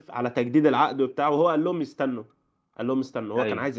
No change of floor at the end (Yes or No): Yes